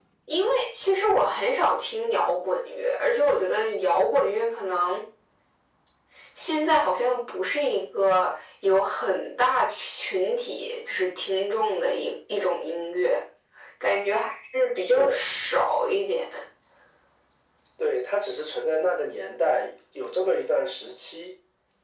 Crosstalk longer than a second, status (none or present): none